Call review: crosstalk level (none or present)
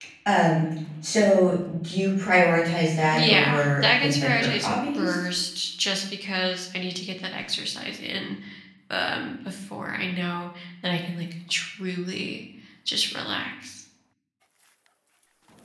present